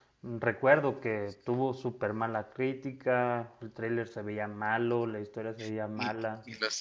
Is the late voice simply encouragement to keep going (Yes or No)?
No